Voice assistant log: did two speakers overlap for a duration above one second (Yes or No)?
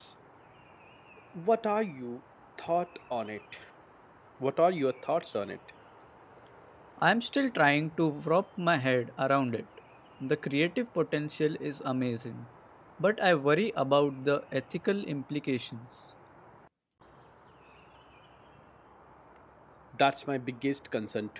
No